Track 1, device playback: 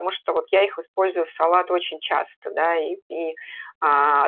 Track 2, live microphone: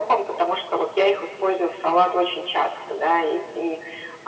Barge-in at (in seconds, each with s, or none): none